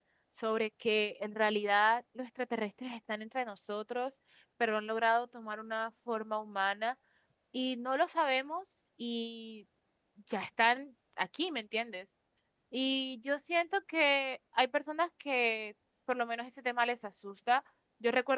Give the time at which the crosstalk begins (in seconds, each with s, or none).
none